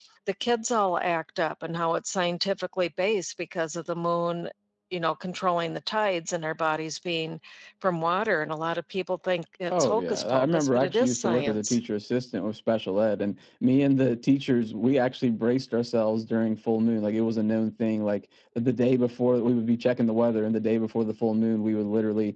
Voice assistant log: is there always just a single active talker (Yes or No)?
No